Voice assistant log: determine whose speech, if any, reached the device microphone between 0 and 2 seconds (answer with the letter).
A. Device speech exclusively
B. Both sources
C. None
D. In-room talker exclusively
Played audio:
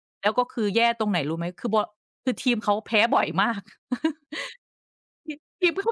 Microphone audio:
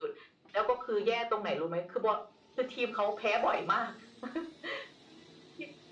A